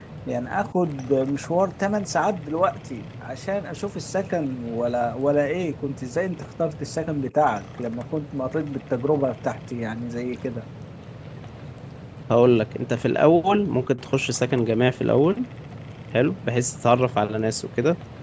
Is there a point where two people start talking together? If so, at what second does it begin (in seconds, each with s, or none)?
none